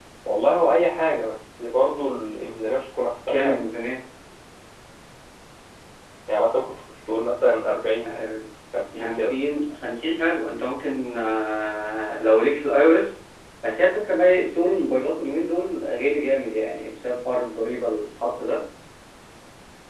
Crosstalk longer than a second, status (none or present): none